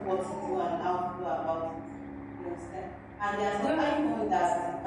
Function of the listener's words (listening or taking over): listening